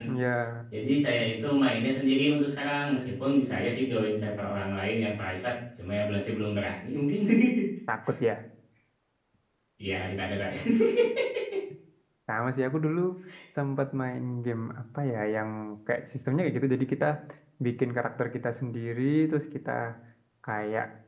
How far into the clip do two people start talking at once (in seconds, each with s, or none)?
none